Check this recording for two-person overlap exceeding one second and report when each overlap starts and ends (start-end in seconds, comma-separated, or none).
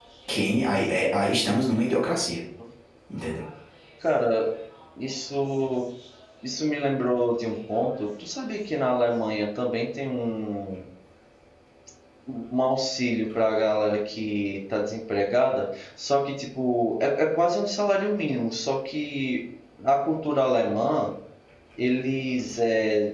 none